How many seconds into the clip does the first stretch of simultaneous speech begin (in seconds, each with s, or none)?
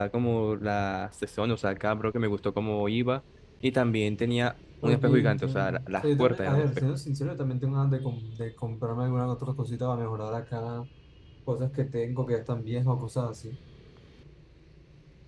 4.8 s